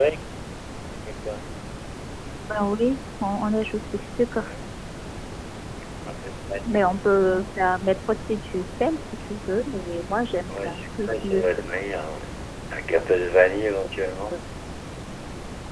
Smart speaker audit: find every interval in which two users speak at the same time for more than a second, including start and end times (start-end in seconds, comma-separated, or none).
10.5-11.8